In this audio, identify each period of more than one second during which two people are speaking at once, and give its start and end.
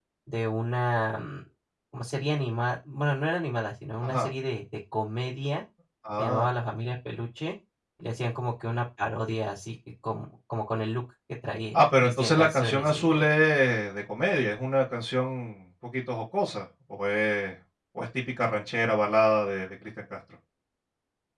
11.7-13.2

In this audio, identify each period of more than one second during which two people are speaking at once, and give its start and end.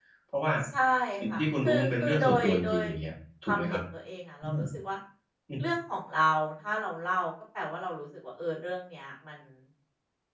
1.3-2.8

